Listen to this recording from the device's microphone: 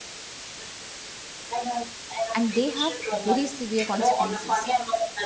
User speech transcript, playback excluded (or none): and they have very severe consequences